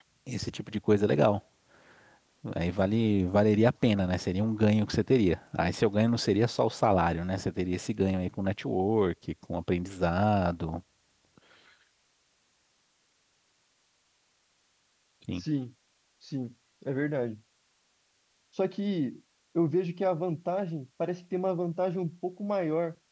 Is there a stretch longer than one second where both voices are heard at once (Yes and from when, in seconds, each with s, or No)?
No